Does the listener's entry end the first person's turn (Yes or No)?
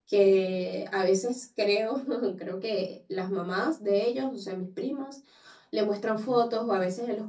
No